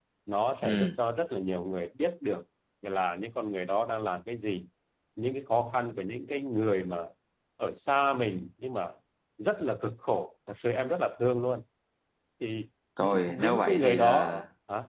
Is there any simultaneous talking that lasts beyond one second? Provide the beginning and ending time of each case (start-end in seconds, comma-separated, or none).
13.0-14.3